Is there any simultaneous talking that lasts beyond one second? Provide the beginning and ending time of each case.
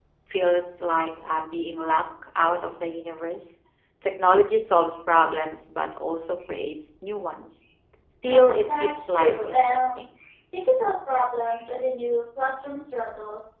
8.2-10.0

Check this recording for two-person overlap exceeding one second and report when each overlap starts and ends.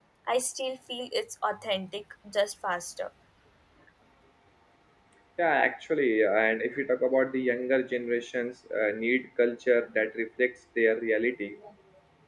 none

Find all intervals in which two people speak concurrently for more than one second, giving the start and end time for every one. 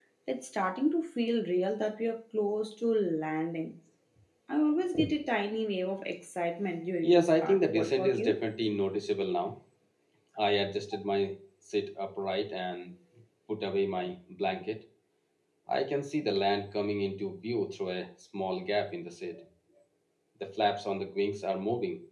7.0-8.4

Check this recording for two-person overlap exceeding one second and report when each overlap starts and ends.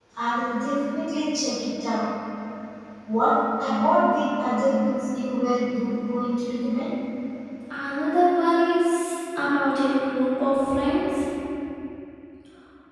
none

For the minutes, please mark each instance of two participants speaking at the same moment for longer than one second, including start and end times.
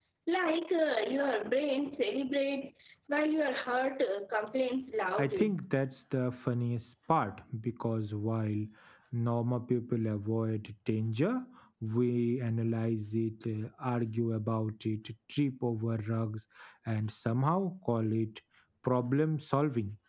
none

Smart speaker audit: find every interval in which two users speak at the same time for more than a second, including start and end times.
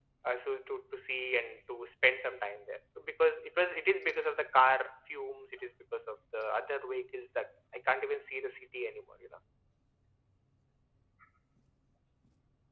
none

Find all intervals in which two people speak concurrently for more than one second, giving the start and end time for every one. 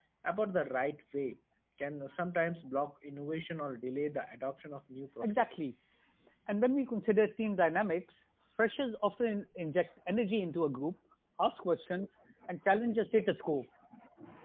none

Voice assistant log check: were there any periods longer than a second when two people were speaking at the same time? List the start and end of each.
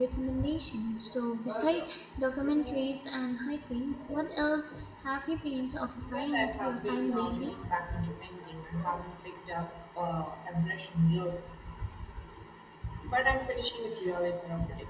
6.1-7.4

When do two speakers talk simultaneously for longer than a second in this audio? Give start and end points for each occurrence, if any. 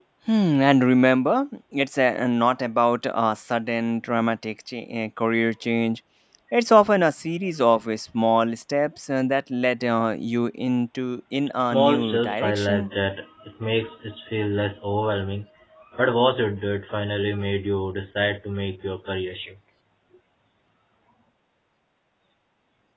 11.6-12.9

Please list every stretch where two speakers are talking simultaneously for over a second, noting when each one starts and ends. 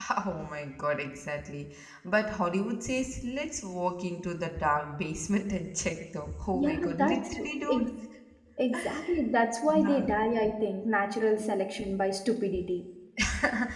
6.5-7.9

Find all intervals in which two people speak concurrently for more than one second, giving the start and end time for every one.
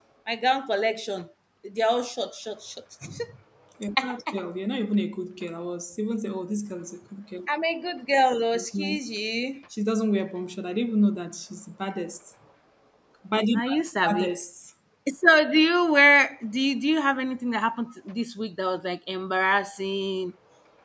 none

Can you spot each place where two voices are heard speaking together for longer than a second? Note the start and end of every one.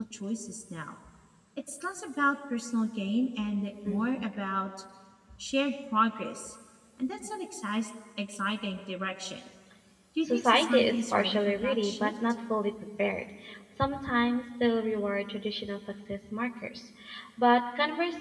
10.2-12.1

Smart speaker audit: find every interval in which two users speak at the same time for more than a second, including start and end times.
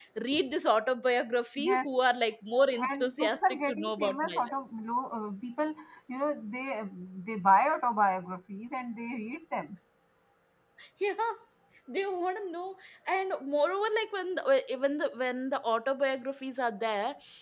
2.9-4.5

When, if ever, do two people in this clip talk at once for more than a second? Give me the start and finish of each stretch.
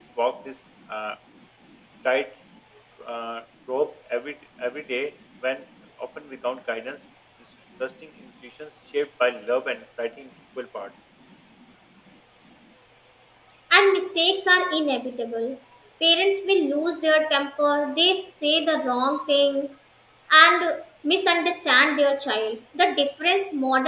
none

